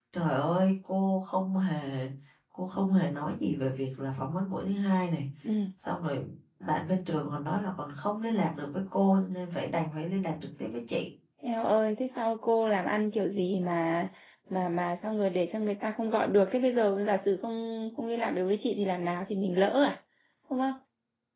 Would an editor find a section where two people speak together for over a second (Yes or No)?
No